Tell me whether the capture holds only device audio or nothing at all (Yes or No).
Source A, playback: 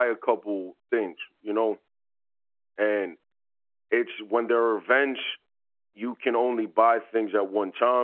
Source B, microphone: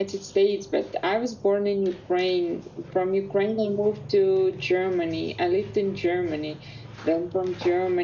No